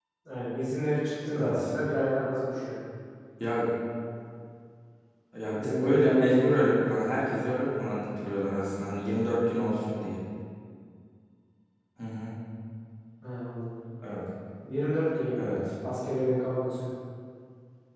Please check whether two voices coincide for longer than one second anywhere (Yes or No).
Yes